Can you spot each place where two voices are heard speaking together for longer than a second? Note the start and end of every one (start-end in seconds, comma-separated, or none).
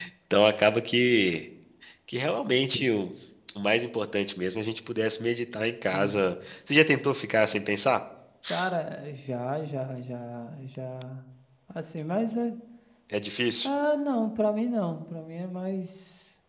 none